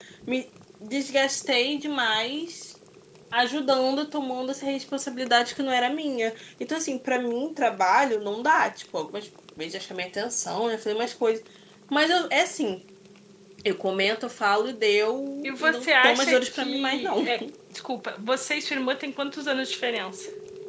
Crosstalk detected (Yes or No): Yes